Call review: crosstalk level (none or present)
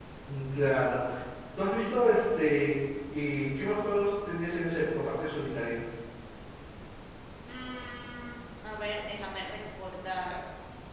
none